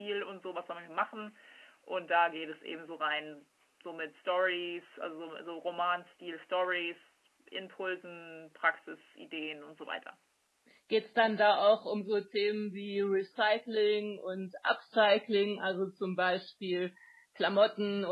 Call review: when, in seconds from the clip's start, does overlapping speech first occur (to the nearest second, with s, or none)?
none